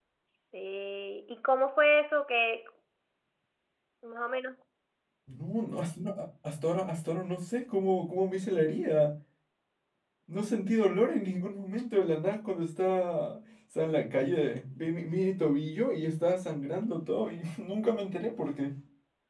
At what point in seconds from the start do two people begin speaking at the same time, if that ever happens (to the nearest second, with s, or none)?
none